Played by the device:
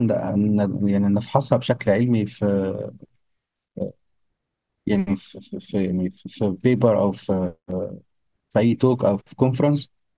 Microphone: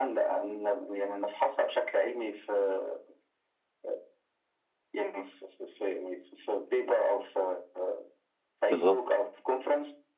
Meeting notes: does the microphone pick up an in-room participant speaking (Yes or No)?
Yes